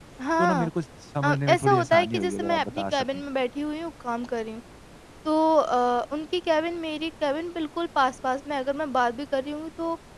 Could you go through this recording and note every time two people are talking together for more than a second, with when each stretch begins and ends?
1.2-3.2

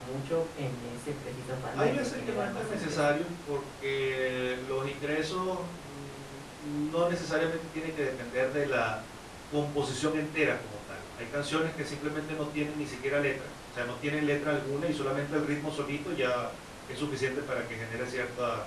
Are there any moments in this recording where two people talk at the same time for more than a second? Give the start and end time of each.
1.7-3.0

